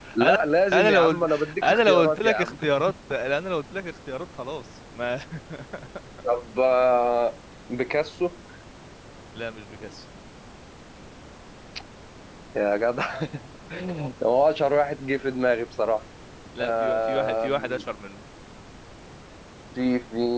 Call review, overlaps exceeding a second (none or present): present